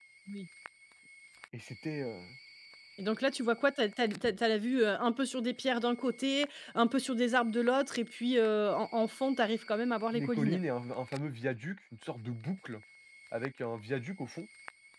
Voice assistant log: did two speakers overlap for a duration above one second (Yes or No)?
No